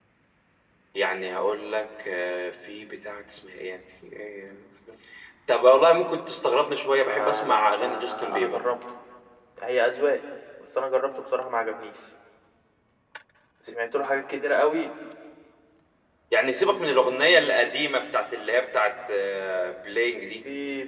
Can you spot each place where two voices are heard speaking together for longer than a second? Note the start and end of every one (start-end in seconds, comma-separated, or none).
7.1-8.6